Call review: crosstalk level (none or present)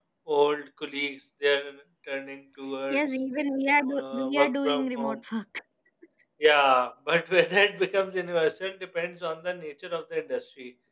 present